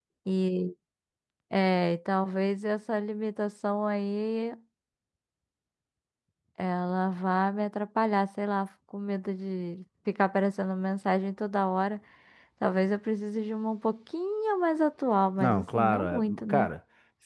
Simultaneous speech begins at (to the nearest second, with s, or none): 15 s